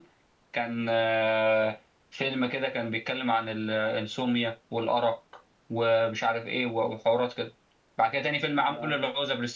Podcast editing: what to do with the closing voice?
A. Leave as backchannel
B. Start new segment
A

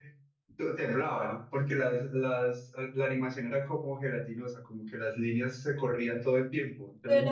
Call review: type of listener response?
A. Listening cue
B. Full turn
B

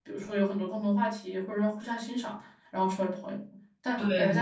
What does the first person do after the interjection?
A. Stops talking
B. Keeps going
B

